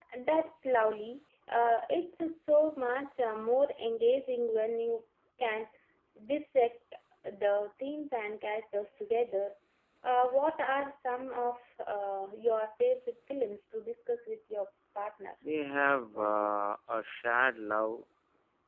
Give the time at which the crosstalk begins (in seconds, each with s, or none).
none